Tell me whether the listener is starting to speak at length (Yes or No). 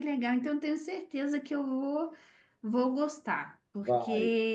No